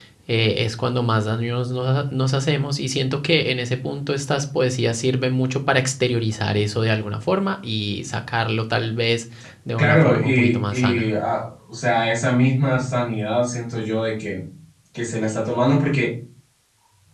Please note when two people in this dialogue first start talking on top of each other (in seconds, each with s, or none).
9.8 s